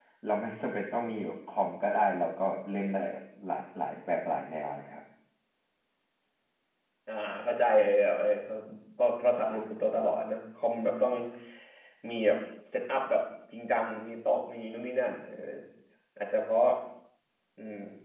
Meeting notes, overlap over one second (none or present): none